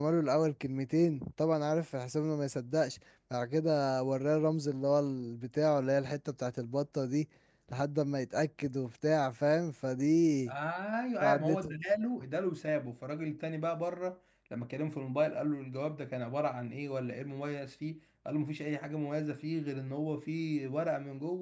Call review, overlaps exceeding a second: none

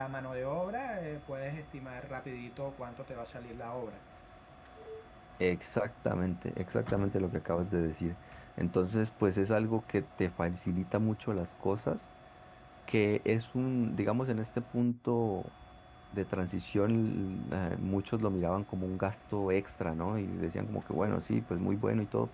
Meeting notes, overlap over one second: none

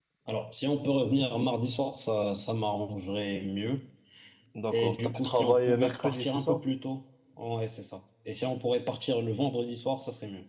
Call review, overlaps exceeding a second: present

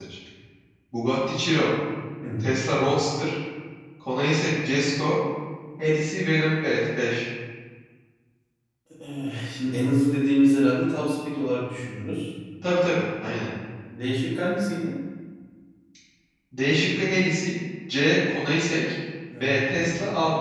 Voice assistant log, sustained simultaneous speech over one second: none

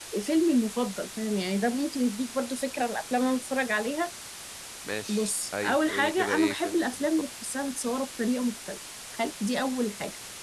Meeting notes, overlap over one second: present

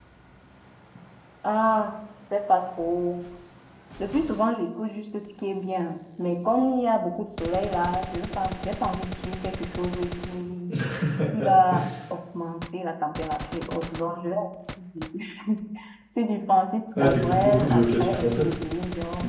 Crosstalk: present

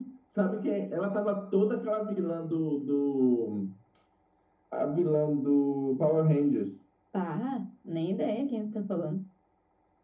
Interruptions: none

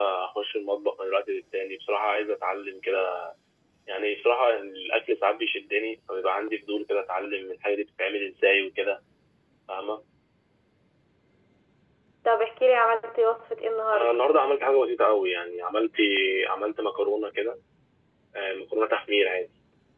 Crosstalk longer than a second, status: none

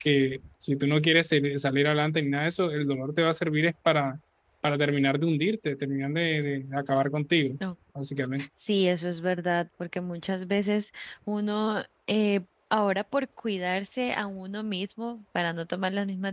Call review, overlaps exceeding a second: none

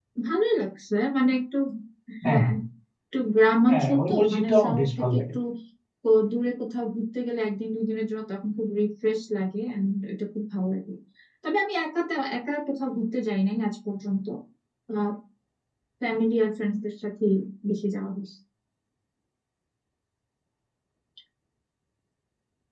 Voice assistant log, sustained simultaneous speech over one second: present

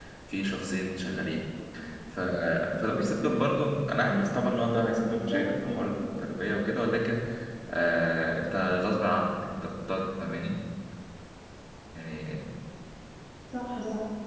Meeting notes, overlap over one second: present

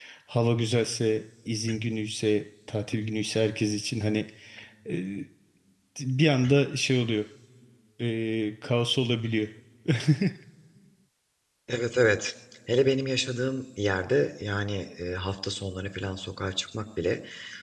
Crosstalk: none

